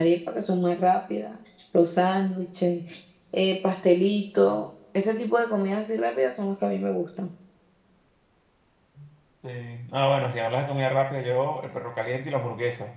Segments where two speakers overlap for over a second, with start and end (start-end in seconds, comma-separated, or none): none